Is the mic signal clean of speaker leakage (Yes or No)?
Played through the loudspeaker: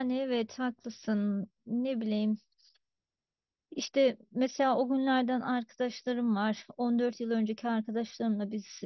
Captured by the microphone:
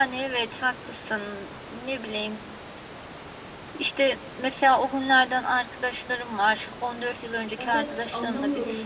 No